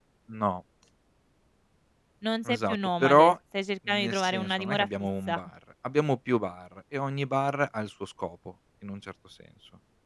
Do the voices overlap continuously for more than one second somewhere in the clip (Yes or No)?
Yes